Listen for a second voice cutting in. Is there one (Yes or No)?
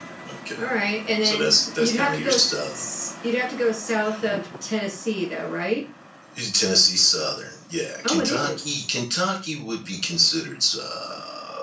Yes